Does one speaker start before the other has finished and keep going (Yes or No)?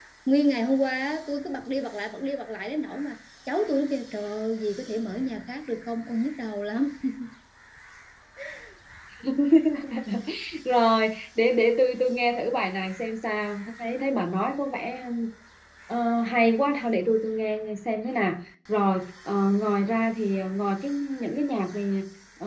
No